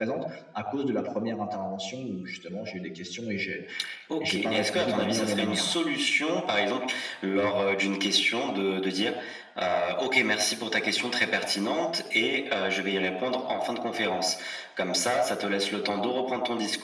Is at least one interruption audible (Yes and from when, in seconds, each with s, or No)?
Yes, from 4.3 s